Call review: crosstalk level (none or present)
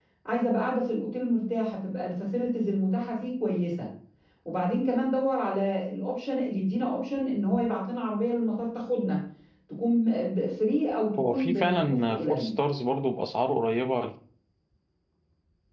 present